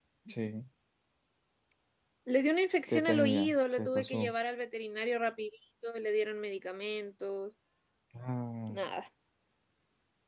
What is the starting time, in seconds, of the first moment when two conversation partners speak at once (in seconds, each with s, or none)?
2.9 s